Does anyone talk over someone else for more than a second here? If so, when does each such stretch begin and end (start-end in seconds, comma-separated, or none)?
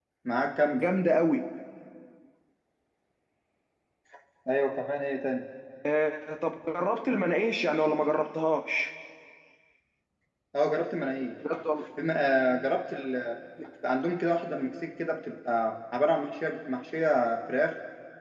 none